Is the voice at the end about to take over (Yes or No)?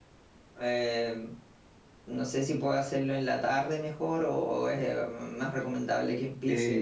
Yes